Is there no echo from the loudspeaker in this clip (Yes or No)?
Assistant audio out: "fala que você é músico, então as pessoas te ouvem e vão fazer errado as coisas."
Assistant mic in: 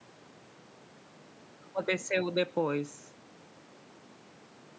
Yes